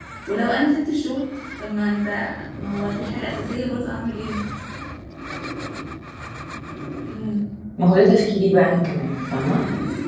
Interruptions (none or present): none